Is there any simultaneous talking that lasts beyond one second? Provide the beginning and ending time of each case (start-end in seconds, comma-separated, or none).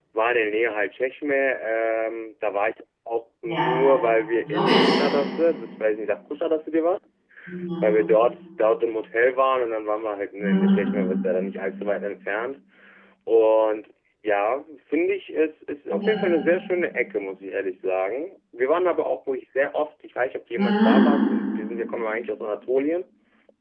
none